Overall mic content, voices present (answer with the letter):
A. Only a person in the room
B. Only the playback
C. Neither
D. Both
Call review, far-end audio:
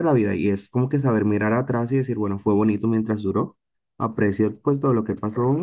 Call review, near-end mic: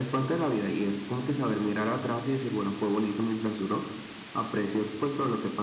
B